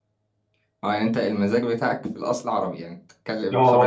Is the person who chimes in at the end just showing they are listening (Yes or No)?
No